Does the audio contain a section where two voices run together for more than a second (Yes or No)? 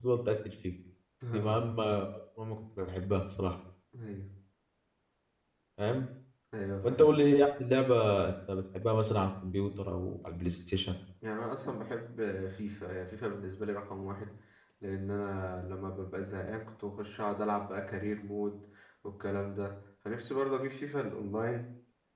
No